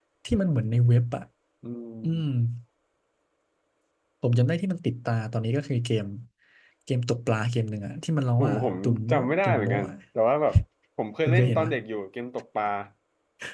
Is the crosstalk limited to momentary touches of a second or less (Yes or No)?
No